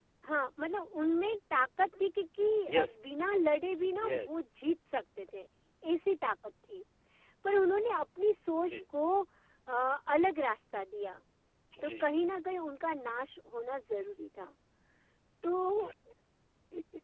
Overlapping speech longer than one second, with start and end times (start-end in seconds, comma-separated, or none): none